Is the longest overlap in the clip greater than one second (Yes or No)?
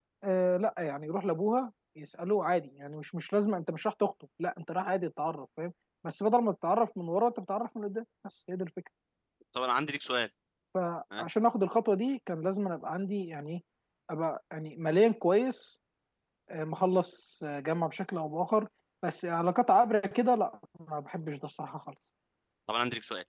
No